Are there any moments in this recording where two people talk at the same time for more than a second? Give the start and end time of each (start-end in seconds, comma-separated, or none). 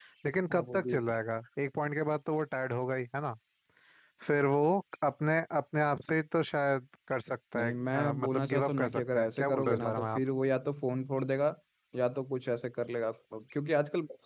7.6-10.2